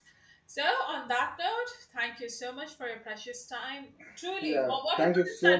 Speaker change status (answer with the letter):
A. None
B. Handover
B